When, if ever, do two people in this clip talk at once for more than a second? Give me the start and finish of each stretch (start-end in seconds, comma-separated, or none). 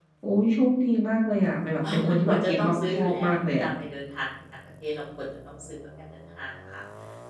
1.9-3.7